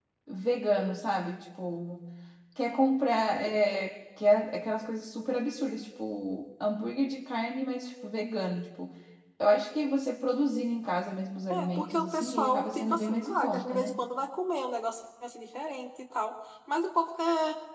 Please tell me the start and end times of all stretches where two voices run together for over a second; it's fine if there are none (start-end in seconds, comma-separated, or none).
11.5-13.9